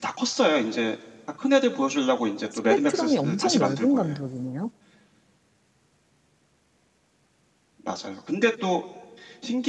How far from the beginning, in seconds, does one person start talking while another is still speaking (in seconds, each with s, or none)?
2.7 s